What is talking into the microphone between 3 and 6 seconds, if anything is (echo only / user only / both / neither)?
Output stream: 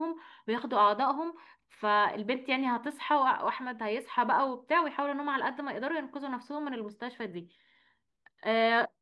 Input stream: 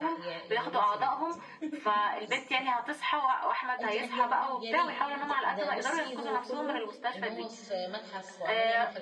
both